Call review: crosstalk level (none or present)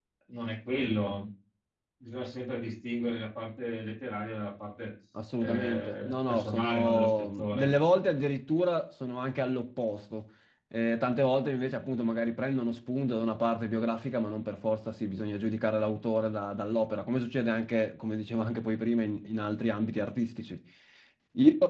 present